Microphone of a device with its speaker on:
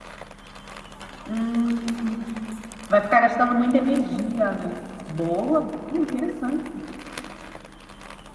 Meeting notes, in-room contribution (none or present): present